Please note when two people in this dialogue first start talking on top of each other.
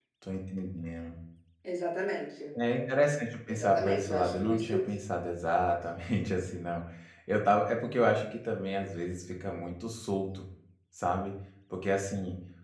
3.5 s

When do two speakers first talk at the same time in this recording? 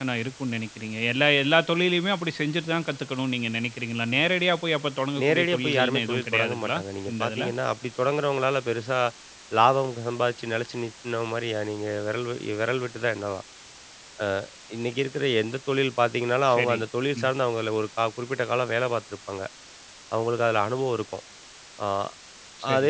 5.2 s

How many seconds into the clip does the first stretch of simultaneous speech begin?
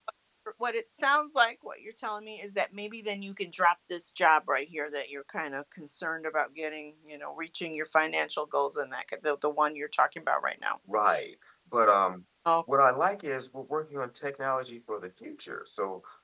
none

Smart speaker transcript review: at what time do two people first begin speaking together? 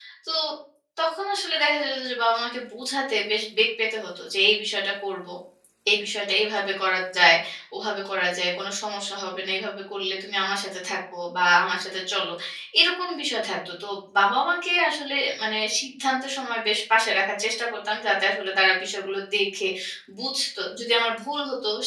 none

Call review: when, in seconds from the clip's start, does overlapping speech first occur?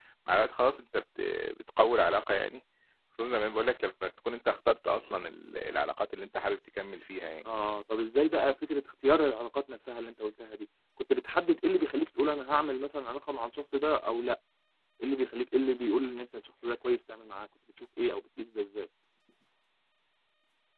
none

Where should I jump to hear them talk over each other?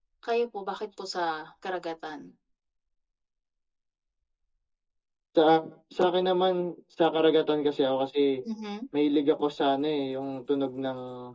none

